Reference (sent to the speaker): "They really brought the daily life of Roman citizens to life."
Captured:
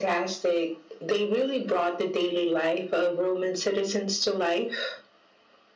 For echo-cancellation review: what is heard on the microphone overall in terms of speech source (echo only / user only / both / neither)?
echo only